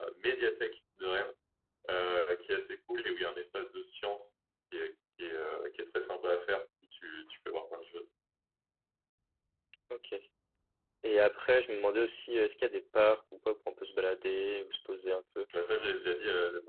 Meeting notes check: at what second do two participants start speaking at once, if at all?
none

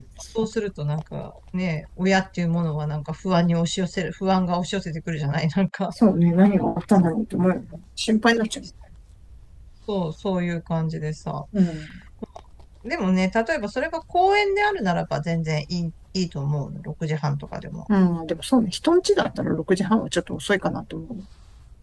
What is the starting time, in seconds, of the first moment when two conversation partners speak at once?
none

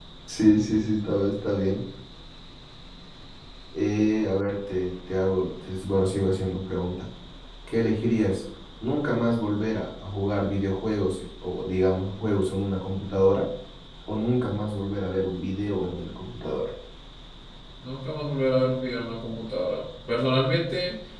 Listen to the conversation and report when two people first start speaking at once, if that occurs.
none

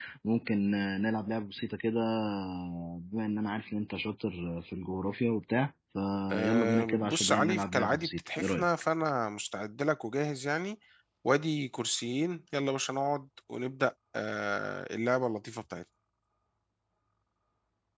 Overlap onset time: 6.3 s

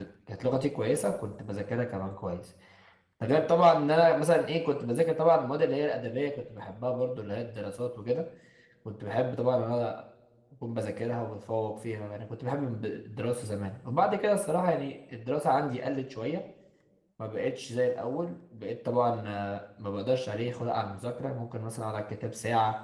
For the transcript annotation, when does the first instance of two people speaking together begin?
none

